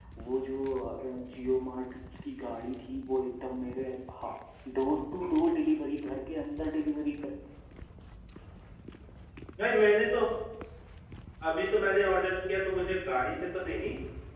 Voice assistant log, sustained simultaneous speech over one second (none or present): none